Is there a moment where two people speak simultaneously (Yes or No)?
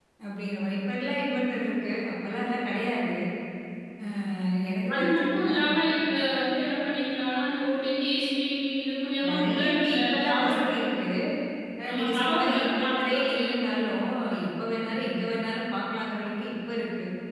Yes